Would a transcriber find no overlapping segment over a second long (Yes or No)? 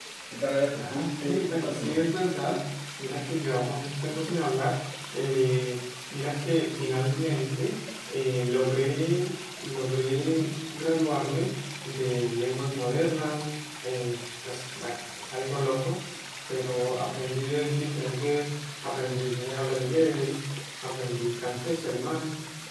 No